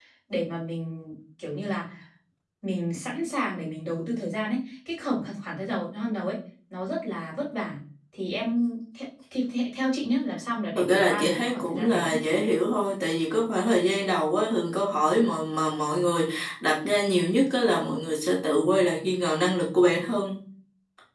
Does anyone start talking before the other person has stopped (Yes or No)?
Yes